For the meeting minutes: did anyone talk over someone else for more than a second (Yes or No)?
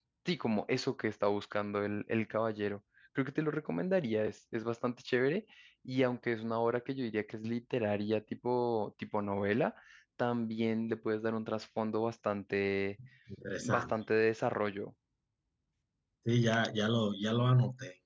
No